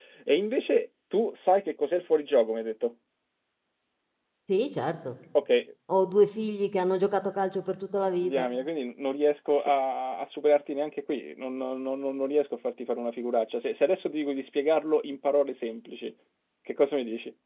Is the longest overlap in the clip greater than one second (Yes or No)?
No